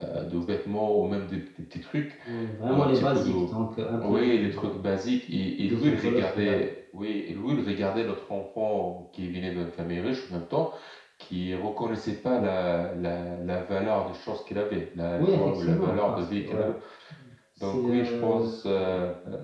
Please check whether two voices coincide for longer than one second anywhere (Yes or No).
Yes